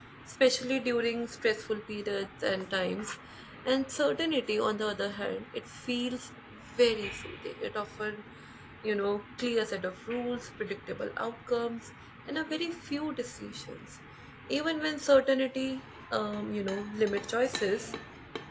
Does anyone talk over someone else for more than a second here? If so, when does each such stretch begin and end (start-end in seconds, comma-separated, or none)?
none